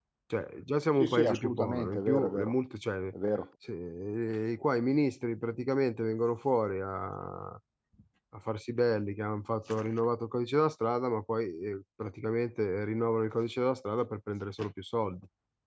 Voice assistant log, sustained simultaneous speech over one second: present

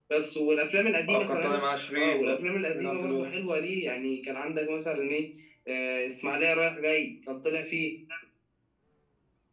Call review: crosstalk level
present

